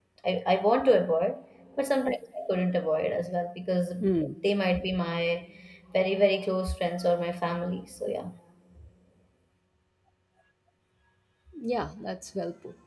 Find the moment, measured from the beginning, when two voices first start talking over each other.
none

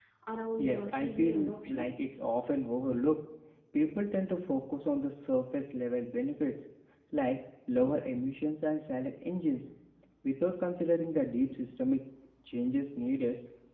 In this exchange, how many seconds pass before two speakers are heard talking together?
0.6 s

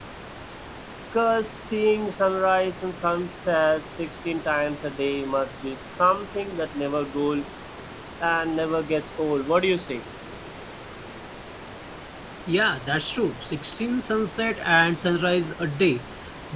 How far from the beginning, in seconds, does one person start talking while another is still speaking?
none

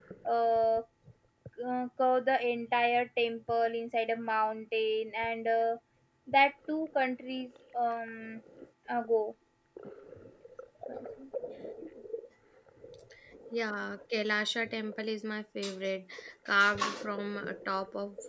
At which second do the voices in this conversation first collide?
none

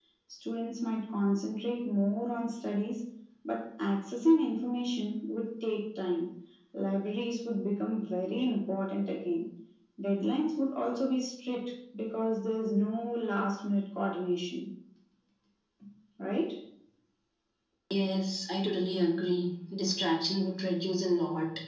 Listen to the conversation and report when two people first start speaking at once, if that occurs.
none

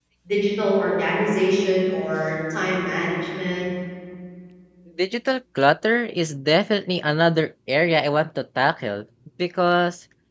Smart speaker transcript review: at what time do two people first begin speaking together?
none

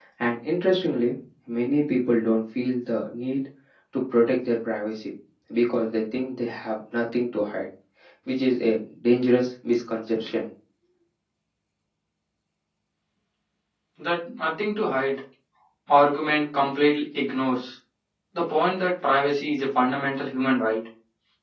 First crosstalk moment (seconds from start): none

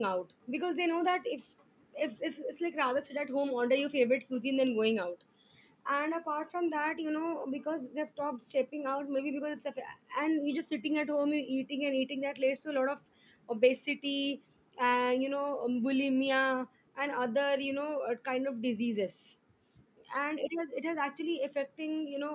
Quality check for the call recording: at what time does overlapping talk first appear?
none

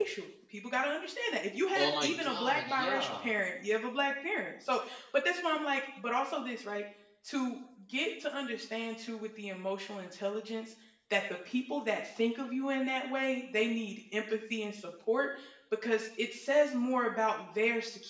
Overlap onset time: 1.8 s

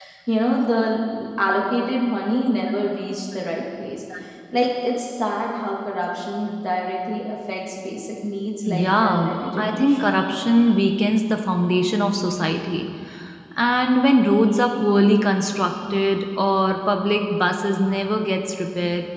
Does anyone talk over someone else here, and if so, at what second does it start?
8.7 s

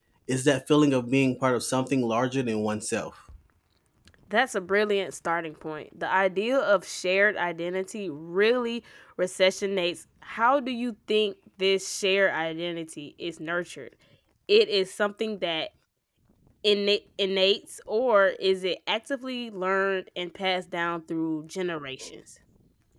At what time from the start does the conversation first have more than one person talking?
none

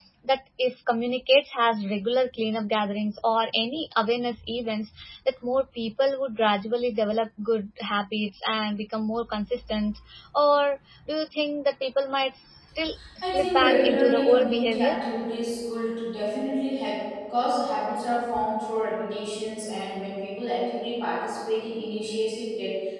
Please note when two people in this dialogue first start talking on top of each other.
13.0 s

